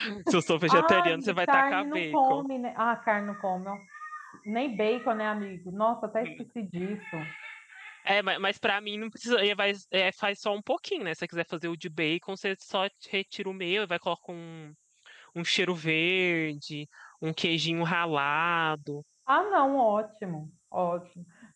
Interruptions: present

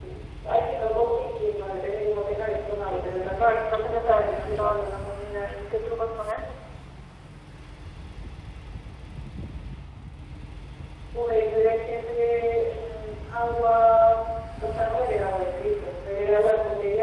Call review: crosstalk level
present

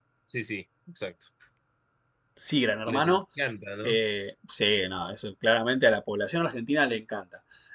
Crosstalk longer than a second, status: none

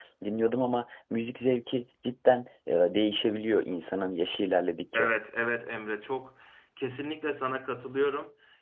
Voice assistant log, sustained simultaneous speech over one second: none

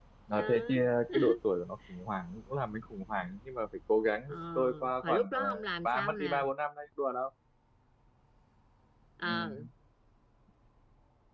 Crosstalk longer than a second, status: present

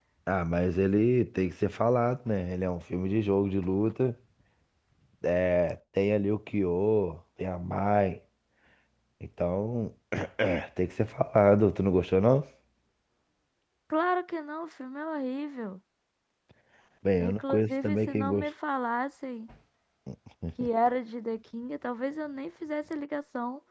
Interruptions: present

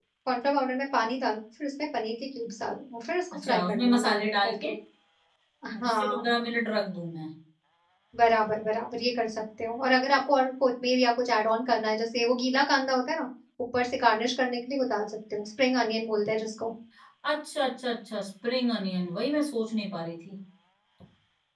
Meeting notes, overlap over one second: present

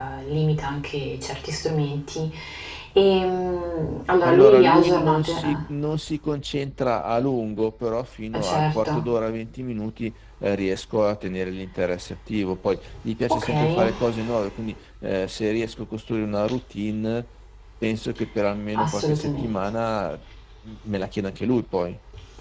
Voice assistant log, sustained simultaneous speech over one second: present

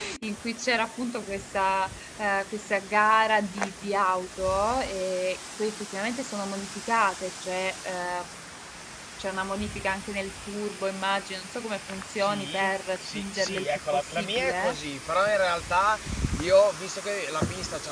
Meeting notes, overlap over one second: present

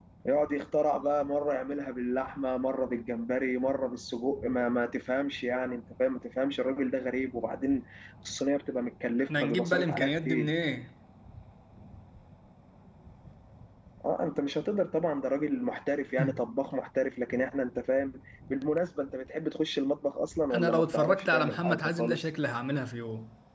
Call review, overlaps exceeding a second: present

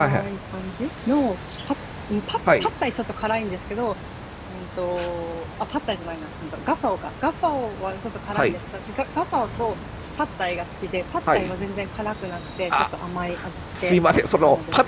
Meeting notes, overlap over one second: none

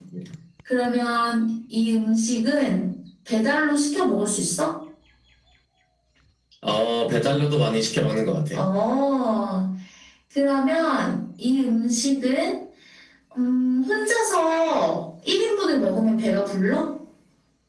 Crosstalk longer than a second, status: none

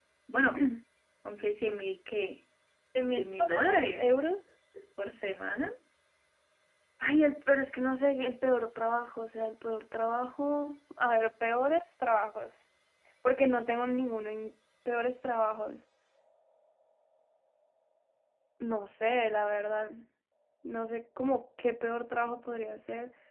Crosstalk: present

